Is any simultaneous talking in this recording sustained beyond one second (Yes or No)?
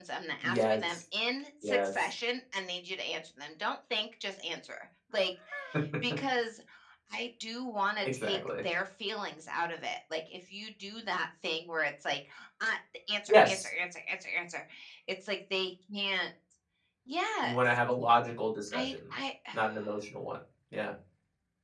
No